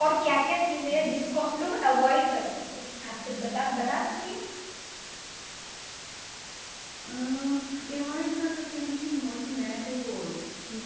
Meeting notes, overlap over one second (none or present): none